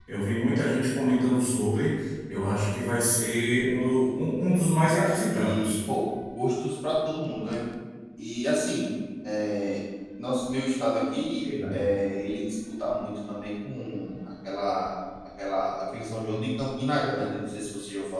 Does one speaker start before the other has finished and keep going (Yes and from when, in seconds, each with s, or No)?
Yes, from 4.5 s